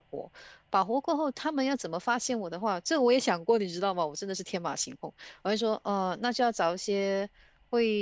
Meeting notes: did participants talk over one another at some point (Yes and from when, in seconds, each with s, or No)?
No